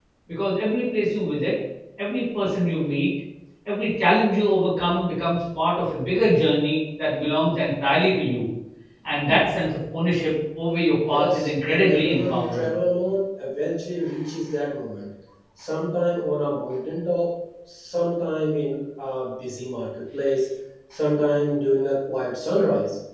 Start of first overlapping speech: 11 s

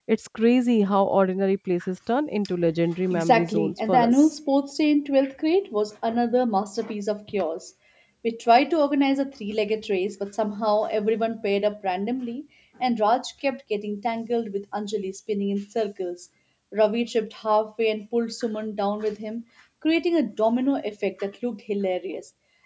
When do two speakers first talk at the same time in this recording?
3 s

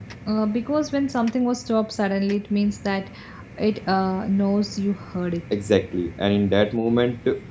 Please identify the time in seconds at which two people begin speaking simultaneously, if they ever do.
none

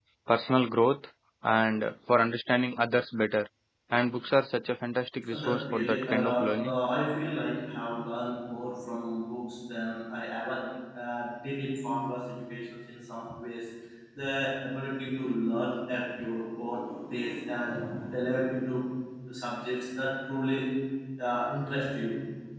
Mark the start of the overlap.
5 s

